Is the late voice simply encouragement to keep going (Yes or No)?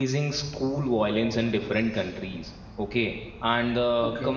Yes